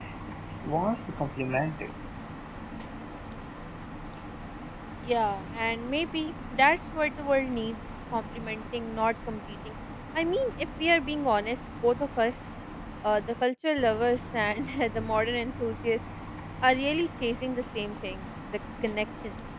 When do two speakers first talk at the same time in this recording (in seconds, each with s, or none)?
none